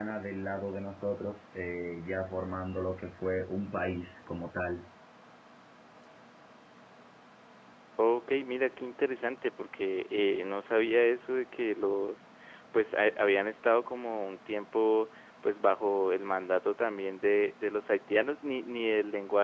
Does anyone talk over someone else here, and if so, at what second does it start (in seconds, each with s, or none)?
none